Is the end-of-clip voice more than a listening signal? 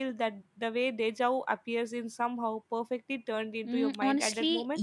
Yes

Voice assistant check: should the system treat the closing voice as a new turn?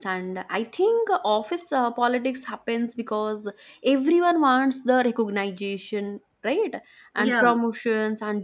No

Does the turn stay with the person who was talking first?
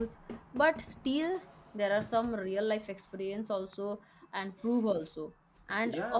No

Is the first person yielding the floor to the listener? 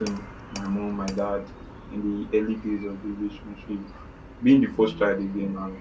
No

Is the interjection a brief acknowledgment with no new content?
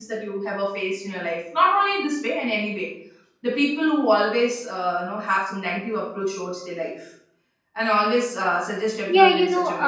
No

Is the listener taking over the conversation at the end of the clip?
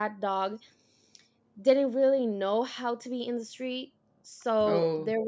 No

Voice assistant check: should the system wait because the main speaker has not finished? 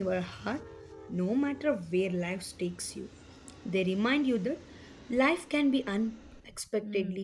No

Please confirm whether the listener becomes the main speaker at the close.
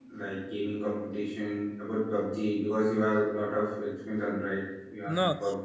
Yes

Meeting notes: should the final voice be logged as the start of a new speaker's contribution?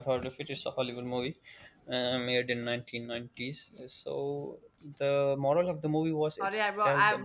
Yes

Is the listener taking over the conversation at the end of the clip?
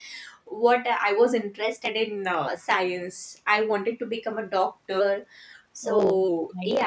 No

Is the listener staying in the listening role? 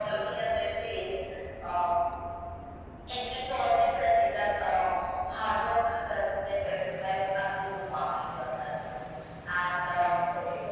Yes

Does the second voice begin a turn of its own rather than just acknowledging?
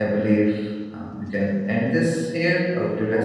Yes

